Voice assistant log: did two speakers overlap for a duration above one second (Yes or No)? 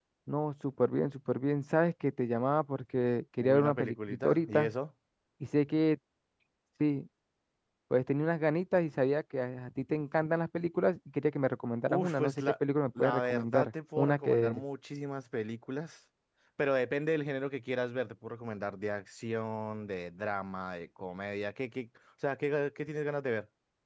Yes